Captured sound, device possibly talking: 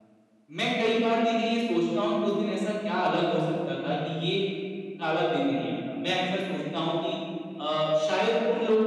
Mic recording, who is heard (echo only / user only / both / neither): both